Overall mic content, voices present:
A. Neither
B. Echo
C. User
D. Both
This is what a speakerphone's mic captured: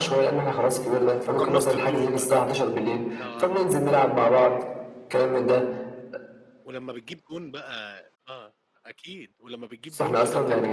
D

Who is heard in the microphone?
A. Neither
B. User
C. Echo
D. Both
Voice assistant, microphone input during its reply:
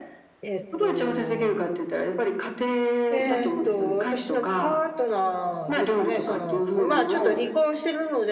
D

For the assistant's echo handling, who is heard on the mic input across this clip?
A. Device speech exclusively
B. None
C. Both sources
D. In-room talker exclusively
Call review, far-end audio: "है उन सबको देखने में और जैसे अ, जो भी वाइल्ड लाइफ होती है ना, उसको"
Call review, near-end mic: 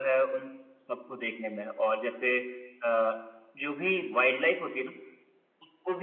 A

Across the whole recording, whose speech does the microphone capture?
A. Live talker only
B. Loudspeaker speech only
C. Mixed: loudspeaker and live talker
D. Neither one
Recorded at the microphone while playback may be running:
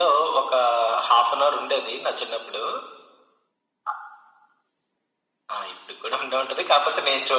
B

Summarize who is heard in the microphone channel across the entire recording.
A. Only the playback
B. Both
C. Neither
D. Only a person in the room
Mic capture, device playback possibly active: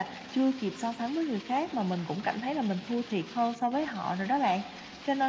A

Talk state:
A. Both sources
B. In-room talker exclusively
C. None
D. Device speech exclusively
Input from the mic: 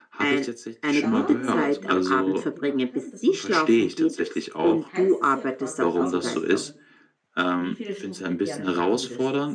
A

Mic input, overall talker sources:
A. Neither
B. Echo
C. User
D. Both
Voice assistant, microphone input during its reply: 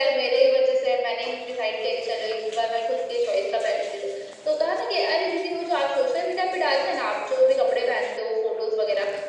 B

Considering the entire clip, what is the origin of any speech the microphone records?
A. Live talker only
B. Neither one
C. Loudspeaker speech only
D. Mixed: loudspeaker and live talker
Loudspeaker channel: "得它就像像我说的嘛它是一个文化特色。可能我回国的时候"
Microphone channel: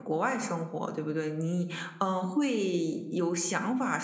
A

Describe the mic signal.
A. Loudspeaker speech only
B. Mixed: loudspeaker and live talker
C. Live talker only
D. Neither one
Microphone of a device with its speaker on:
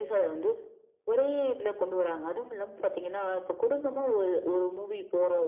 A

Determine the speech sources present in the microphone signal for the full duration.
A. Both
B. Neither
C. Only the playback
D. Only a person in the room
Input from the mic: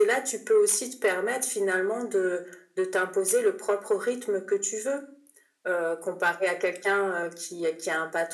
C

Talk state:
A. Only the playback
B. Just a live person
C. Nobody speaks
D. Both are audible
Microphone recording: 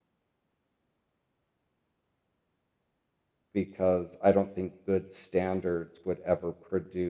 B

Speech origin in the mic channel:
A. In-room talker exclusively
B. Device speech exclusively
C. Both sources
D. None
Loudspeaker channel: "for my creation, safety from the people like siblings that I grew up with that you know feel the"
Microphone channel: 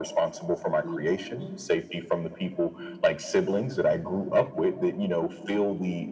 C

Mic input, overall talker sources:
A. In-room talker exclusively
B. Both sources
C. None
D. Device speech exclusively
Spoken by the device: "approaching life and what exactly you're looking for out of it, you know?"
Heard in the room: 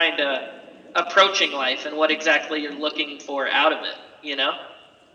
D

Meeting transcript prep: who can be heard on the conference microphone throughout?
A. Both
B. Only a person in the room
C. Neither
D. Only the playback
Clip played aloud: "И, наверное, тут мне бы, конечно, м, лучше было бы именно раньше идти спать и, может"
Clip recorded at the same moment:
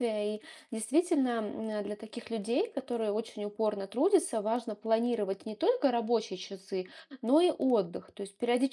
B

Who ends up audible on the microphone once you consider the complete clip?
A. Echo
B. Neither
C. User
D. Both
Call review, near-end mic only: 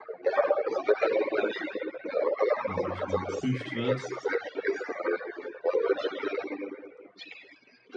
D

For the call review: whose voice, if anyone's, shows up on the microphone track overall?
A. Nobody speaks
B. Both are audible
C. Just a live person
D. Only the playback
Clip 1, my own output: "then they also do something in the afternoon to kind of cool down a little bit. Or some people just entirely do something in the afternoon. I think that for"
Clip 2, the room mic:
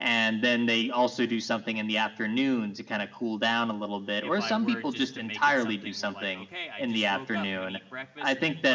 B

